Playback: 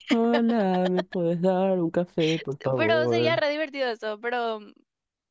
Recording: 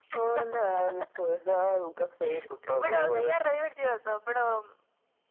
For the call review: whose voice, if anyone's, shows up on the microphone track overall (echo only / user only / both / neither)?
echo only